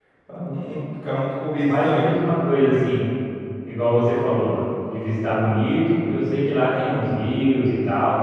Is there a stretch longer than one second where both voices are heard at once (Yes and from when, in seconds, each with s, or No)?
No